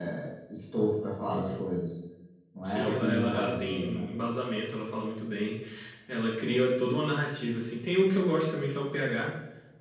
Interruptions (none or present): present